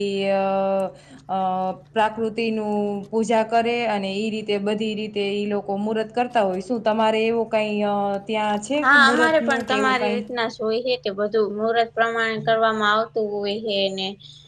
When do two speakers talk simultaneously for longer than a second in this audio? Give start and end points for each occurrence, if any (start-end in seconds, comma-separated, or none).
8.8-10.2